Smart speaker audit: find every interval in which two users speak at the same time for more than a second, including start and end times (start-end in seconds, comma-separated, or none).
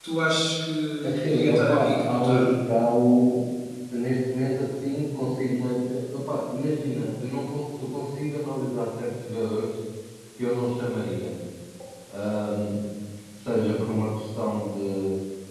1.0-2.5